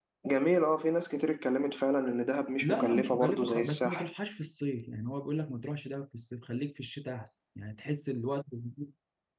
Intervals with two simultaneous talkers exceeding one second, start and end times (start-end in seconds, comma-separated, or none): 2.6-4.1